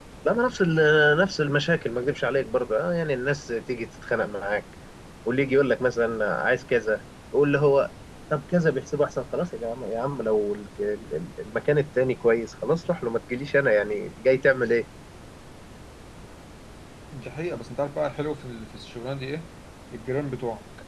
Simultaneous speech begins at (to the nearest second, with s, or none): none